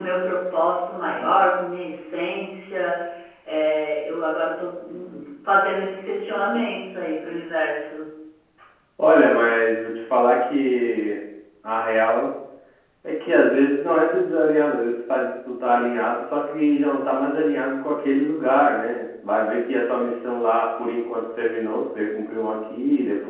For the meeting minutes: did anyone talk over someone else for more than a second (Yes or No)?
No